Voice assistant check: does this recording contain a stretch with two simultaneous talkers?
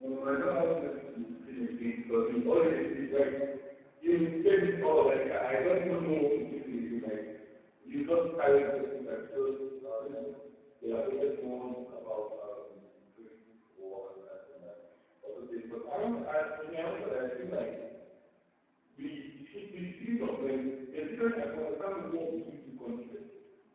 No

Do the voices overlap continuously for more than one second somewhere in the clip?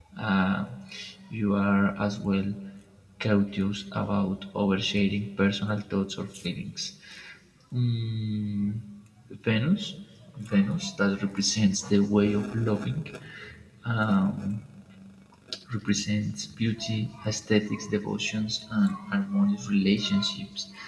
No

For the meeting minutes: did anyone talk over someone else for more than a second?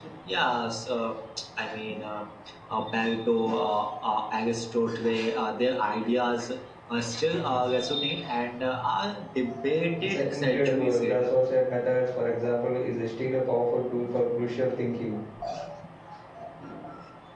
Yes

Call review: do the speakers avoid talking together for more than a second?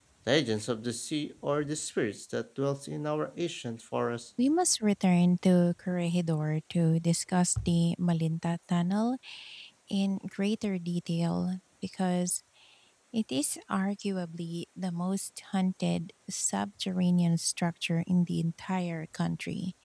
Yes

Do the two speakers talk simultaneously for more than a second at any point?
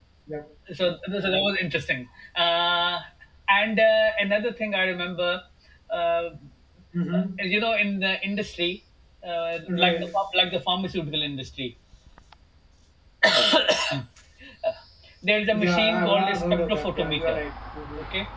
Yes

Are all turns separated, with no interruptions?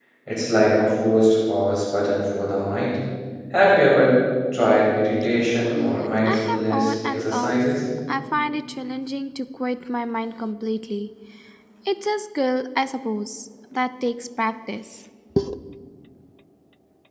No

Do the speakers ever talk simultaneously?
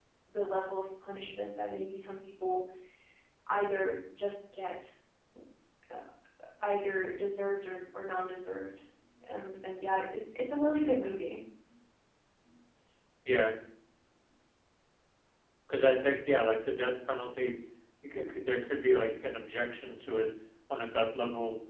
No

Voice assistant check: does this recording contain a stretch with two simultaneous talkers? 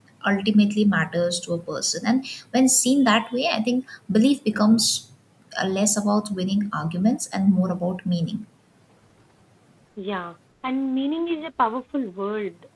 No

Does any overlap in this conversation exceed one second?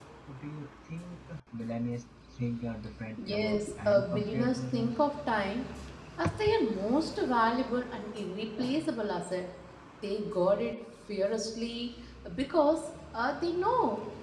Yes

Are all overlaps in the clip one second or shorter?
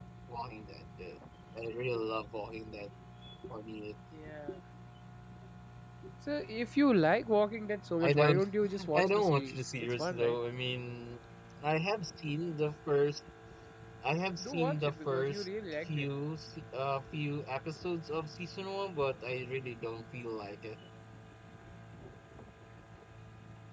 No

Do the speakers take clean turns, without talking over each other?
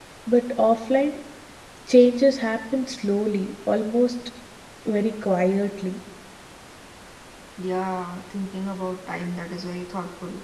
Yes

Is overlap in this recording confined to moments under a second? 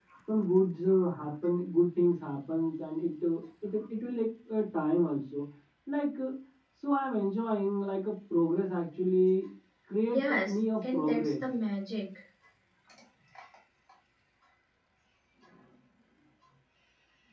No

